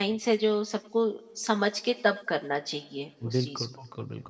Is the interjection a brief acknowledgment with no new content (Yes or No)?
No